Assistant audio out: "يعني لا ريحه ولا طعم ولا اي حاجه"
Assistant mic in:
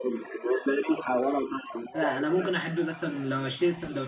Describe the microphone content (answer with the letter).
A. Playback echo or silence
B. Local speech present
B